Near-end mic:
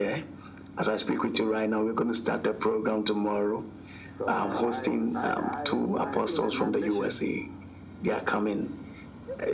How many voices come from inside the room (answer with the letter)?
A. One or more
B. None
A